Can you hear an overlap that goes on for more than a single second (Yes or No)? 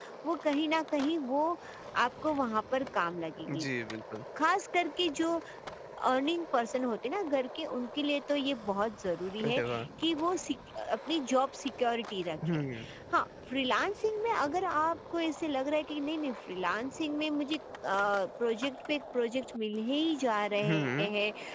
No